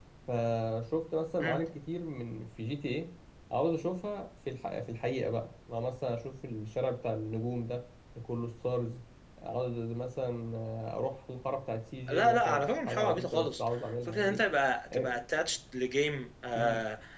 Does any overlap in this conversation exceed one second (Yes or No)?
Yes